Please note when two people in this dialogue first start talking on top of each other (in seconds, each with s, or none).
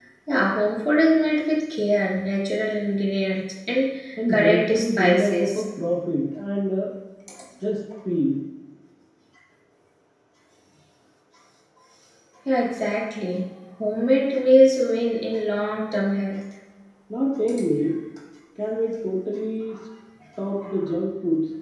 4.3 s